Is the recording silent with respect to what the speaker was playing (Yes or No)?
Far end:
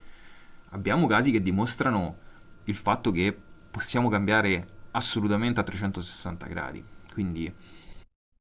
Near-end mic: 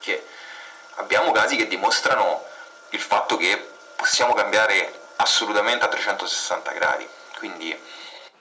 No